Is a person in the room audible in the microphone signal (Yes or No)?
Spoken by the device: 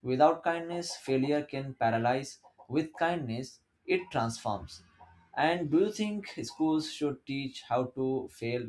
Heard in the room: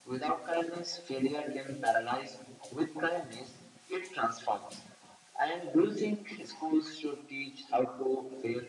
No